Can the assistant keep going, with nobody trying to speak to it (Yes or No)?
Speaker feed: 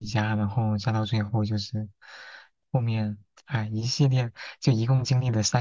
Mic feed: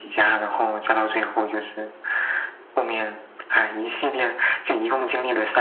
Yes